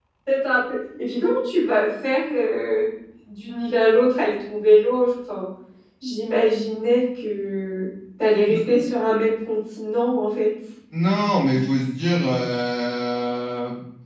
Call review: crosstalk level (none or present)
none